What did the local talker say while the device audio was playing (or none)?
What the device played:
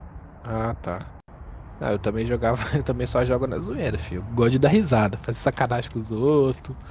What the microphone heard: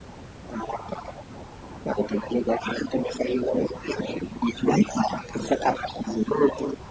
none